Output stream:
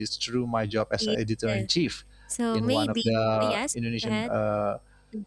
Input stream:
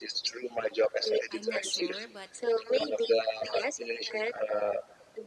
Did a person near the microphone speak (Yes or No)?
Yes